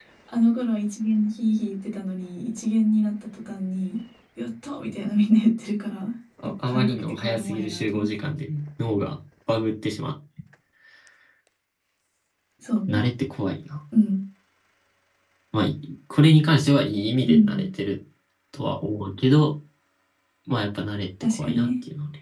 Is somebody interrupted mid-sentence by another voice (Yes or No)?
Yes